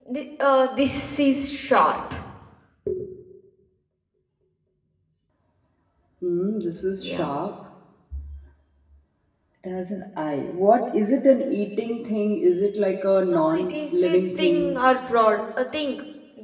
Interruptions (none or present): present